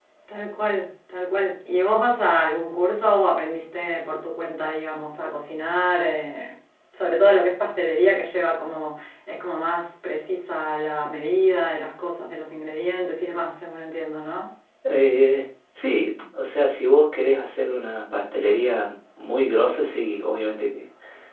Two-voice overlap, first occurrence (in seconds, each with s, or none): none